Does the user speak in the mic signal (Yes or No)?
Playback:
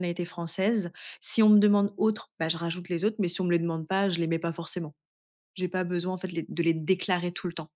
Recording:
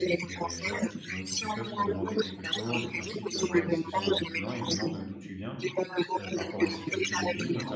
Yes